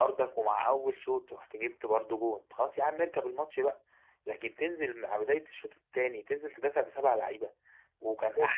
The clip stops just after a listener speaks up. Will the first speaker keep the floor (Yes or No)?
Yes